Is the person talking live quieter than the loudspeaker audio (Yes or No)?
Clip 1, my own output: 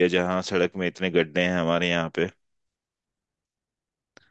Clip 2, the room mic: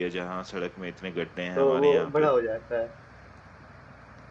No